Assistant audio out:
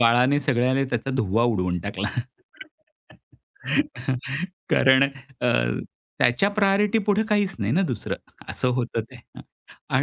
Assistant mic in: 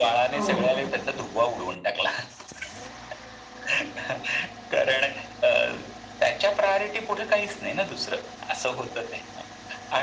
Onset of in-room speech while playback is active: 0 s

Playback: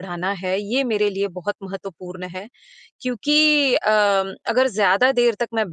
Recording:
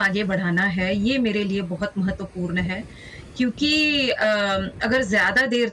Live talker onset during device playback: none

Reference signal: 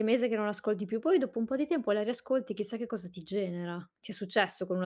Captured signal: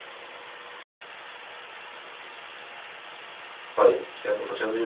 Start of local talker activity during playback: 4 s

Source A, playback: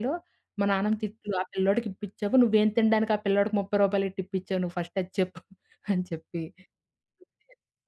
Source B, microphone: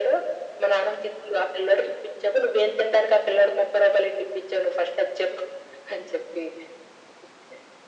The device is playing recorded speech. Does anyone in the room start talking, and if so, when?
none

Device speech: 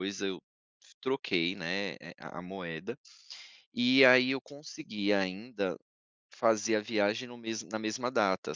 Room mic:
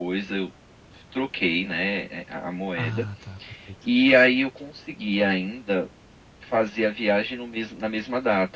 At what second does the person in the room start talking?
3 s

